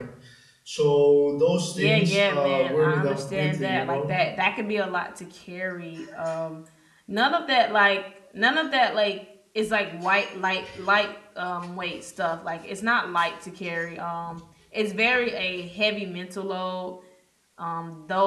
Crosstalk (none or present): present